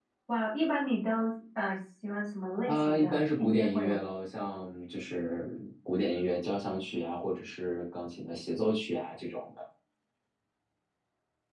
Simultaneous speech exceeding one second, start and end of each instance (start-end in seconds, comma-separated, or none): 2.6-4.0